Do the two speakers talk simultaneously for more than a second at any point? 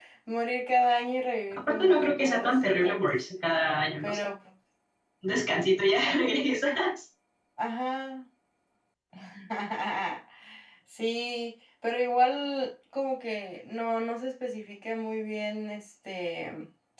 Yes, from 1.5 s

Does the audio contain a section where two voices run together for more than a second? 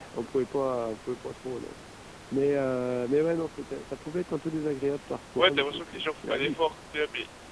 Yes, from 5.4 s

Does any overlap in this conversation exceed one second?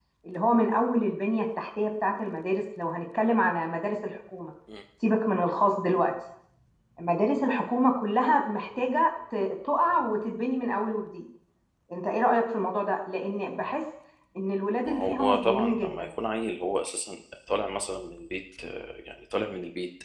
Yes, from 14.9 s

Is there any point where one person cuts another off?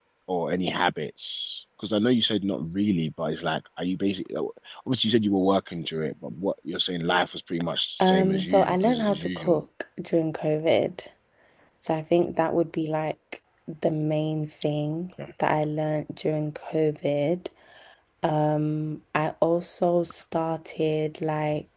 Yes, from 8.0 s

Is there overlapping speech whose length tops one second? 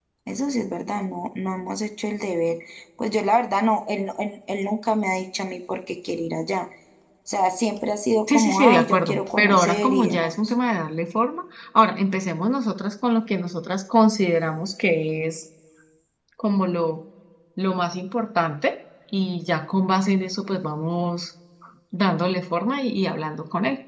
Yes, from 8.3 s

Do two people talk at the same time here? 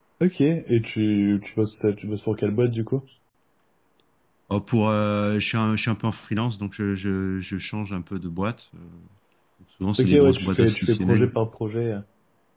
Yes, from 10.0 s

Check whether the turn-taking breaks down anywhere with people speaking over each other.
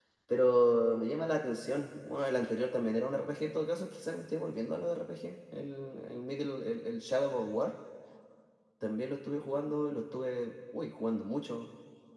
No

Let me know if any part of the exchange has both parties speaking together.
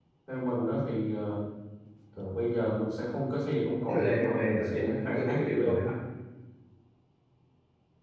Yes, from 3.9 s

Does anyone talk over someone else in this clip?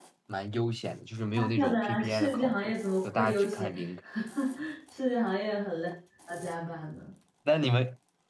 Yes, from 1.4 s

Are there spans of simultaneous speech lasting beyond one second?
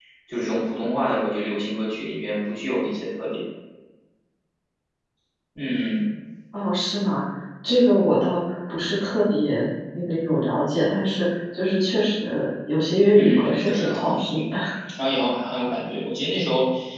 Yes, from 13.1 s

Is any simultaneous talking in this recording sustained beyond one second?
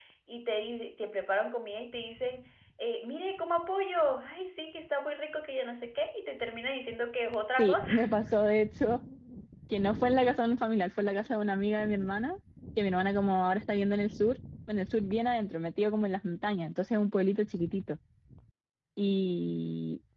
No

